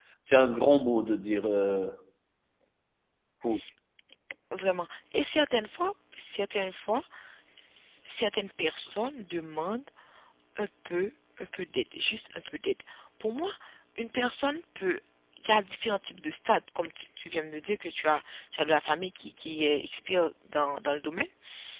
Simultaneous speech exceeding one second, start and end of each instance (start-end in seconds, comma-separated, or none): none